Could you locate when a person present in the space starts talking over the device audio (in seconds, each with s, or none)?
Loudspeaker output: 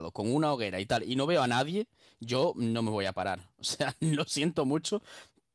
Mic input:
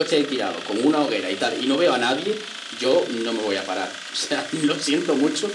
none